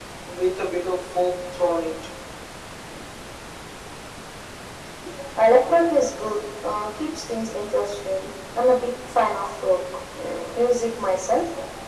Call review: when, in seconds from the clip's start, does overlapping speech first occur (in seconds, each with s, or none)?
none